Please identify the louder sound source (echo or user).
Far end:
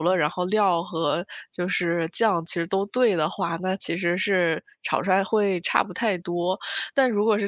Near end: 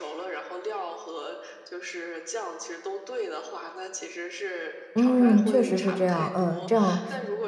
user